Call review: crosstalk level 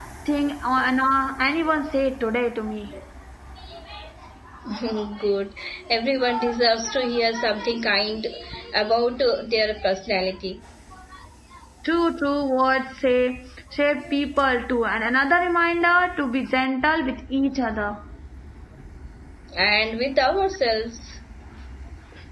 none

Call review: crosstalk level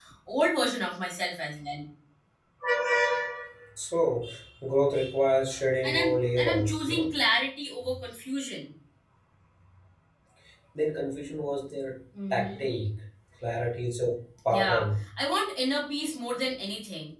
present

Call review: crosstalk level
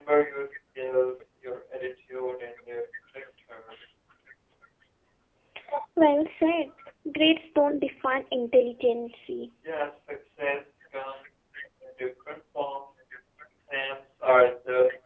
none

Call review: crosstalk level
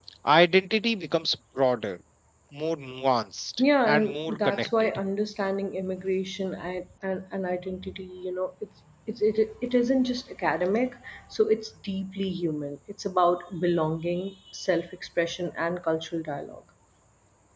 present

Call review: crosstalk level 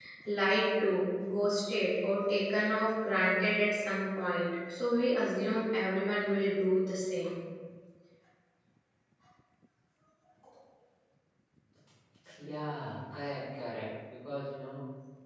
none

